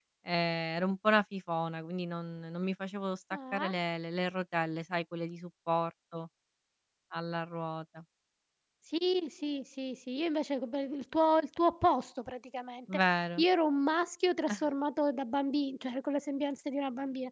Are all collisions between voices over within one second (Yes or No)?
Yes